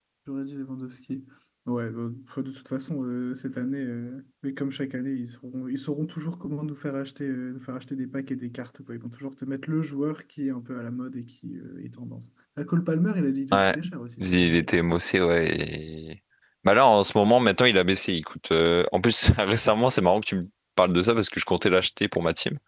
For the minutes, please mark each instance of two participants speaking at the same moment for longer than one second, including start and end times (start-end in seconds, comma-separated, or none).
none